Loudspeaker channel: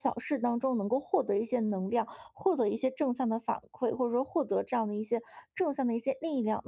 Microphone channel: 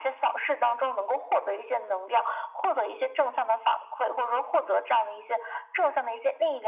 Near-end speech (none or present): none